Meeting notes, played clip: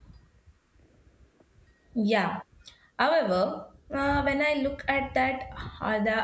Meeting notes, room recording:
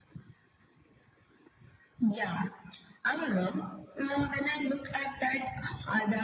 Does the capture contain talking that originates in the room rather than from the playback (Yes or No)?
No